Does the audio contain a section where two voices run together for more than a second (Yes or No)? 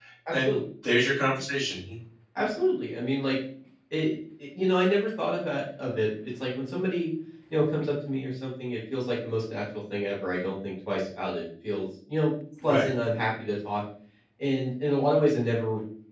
No